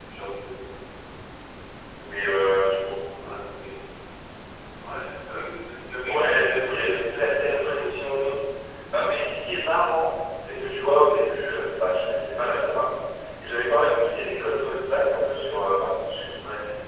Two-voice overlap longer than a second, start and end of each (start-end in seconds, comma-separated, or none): 6.1-8.2